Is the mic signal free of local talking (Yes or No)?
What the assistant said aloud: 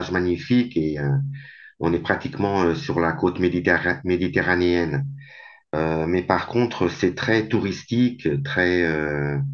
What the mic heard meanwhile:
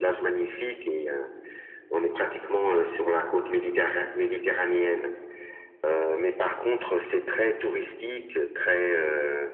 Yes